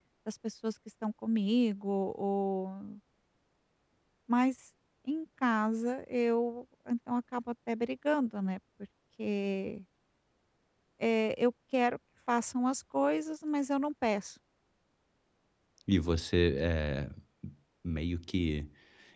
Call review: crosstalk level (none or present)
none